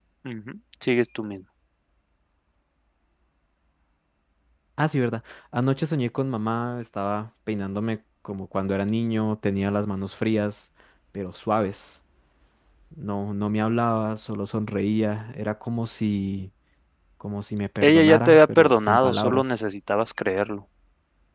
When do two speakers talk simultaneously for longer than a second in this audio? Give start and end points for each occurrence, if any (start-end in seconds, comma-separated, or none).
17.8-19.6